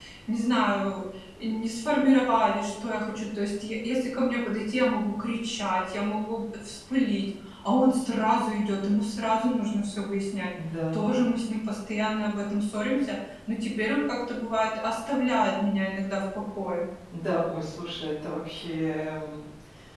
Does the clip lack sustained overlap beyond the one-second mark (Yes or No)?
Yes